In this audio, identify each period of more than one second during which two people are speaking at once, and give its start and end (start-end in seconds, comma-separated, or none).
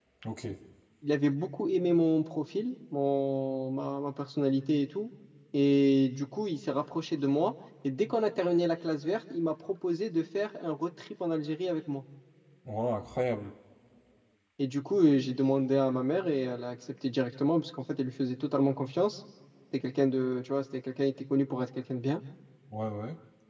none